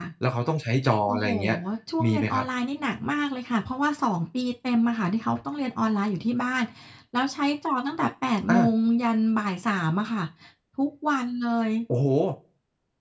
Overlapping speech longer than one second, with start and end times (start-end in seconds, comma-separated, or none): none